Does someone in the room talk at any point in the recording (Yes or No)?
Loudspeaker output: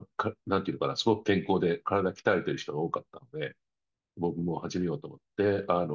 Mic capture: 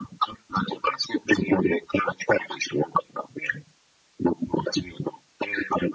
No